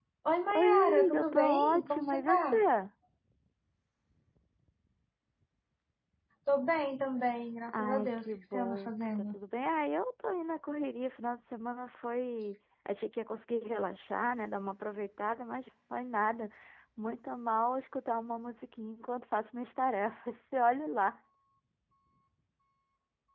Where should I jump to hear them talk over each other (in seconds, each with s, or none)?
0.5 s